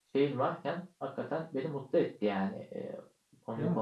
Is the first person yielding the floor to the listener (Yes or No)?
Yes